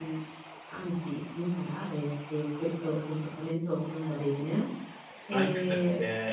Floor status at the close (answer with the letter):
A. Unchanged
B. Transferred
B